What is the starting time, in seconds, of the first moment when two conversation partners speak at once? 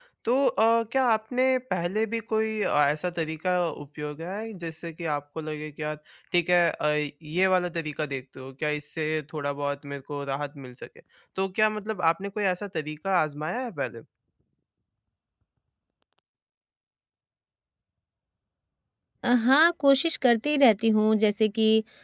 none

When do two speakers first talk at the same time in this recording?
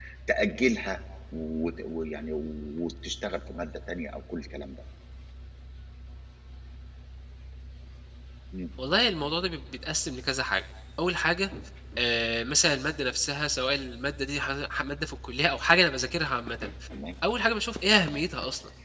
none

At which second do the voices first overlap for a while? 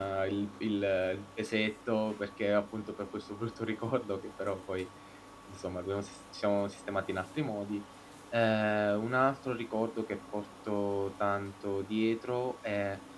none

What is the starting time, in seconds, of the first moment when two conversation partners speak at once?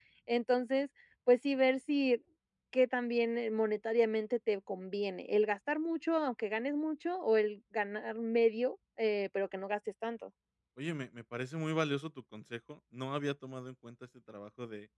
none

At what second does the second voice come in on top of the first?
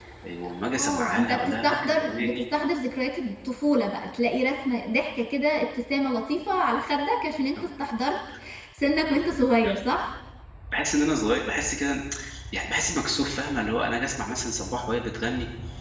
0.6 s

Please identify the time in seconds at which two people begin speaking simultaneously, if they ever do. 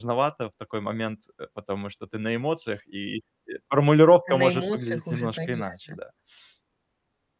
4.3 s

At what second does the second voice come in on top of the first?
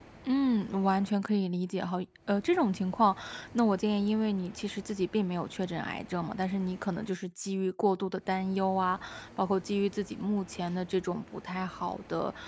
none

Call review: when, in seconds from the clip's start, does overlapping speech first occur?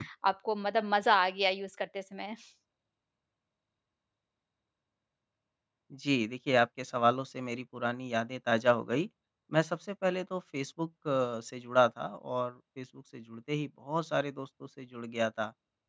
none

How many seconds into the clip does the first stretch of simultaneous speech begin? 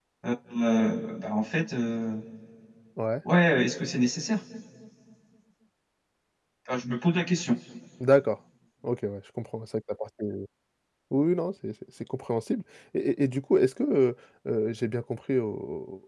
none

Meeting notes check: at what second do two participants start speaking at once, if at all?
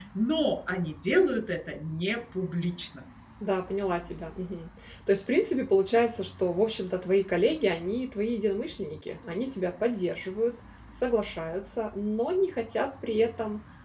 none

